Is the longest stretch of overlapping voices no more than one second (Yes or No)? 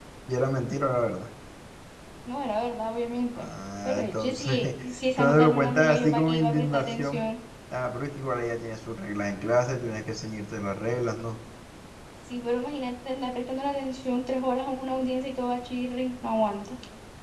No